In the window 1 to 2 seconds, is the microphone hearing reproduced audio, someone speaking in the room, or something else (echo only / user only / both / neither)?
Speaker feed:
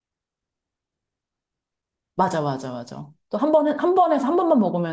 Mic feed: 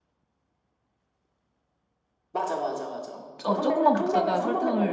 neither